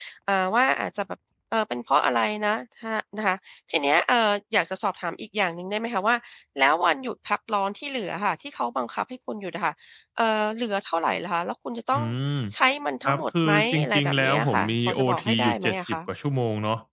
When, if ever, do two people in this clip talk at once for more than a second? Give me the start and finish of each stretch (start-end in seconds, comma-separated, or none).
13.0-16.0